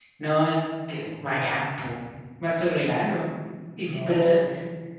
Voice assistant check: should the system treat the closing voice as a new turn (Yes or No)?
No